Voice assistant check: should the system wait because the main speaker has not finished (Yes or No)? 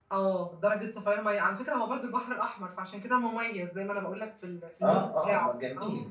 No